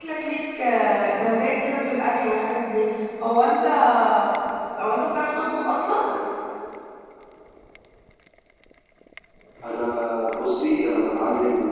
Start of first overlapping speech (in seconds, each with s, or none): none